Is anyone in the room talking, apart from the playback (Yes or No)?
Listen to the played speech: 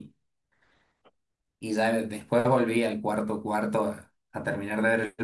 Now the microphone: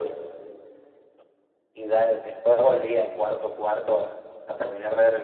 No